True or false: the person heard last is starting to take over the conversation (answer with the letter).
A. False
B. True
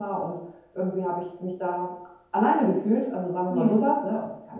A